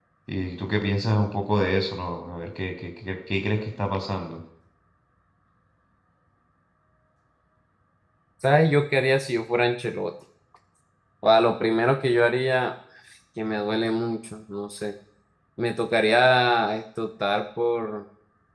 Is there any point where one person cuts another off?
No

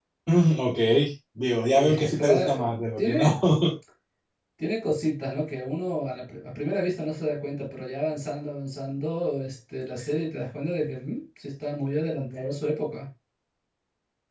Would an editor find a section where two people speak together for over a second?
Yes, from 1.7 s

